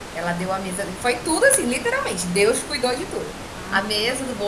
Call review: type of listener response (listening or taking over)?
listening